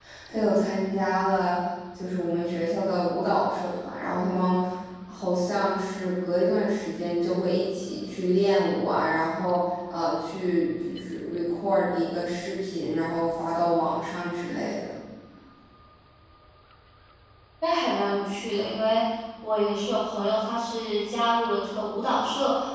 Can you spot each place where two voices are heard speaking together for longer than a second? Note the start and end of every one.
none

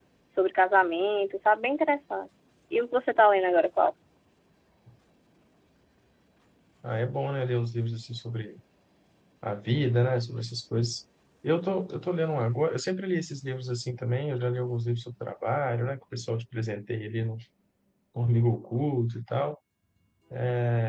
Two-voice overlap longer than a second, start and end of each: none

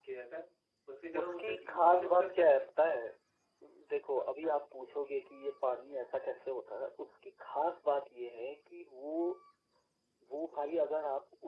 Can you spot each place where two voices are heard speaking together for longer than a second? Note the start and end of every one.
1.2-2.5

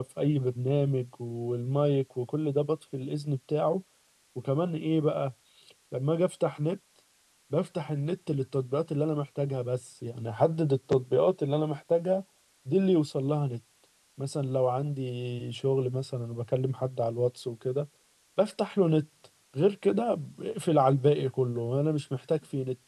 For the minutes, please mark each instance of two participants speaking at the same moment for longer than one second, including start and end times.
none

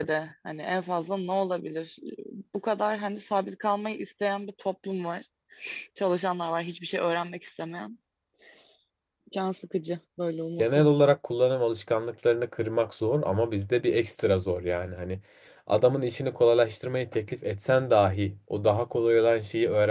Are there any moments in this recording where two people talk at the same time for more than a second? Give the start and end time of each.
none

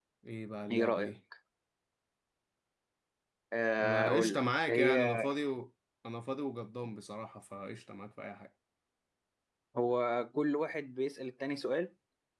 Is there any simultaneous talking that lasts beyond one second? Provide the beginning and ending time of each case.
3.8-5.1

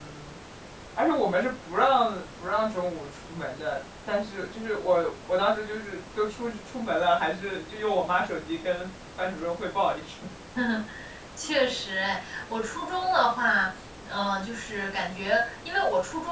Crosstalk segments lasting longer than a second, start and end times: none

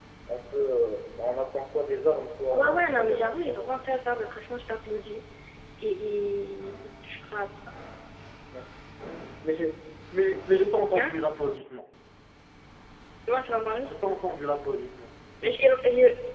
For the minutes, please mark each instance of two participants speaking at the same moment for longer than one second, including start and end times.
2.5-3.9

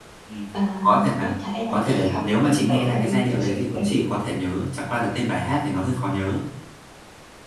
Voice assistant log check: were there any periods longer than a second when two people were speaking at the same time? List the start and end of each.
1.7-4.2

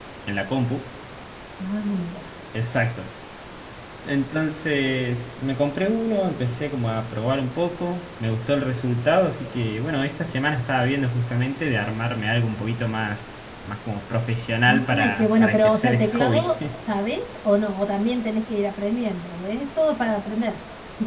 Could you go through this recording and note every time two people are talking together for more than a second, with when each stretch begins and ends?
14.7-16.5

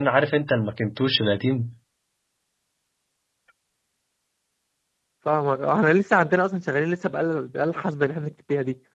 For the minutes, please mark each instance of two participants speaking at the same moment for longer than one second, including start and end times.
none

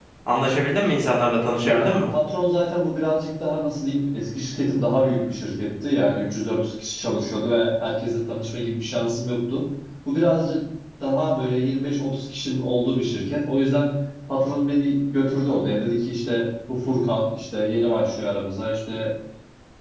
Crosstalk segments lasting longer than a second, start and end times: none

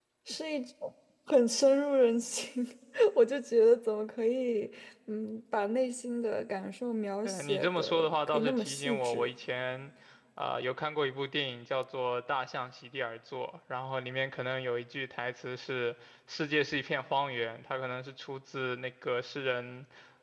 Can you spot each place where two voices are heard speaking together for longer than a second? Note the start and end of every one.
7.2-9.3

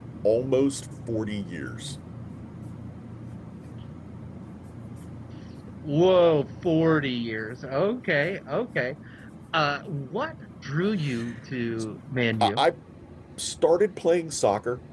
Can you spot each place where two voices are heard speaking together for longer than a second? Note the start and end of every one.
none

